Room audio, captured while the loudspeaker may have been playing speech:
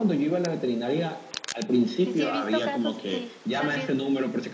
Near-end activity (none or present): present